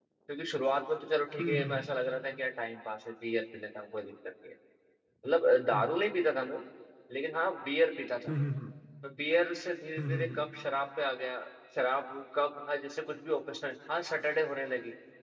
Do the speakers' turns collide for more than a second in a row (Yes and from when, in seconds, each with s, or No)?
No